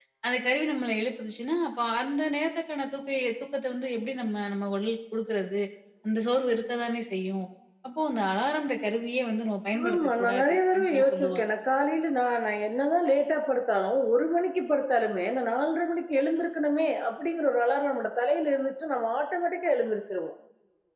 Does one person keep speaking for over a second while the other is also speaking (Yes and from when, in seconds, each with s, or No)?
Yes, from 9.7 s